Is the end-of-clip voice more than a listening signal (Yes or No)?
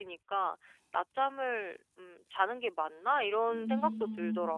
Yes